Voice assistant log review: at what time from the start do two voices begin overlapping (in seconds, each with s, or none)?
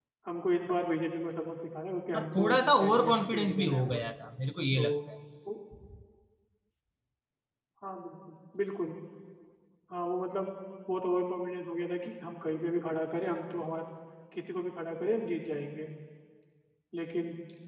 2.1 s